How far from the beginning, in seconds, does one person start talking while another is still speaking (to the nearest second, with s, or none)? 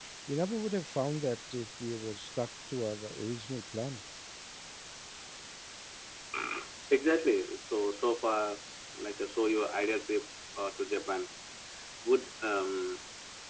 none